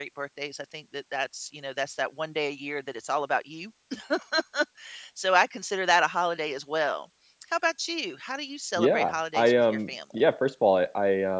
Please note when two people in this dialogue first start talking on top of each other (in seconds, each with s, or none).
8.8 s